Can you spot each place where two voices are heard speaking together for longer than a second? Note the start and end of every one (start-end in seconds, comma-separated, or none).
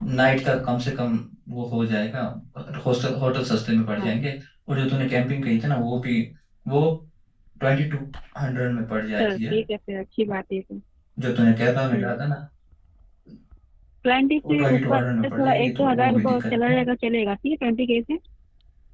14.5-16.8